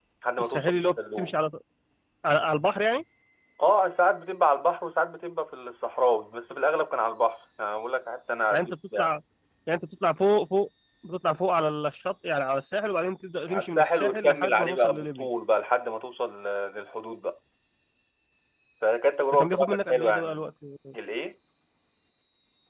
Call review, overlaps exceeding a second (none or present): present